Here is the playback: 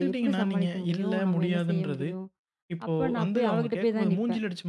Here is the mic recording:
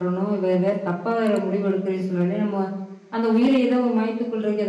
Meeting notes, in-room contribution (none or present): present